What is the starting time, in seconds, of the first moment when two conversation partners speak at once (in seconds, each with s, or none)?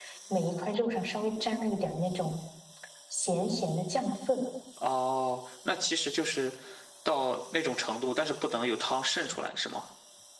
none